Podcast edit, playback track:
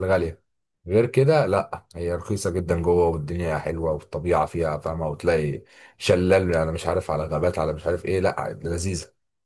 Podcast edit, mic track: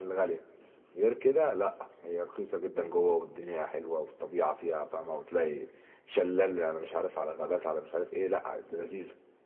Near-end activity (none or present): none